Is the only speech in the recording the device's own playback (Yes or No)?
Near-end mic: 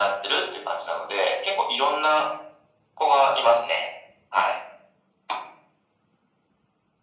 Yes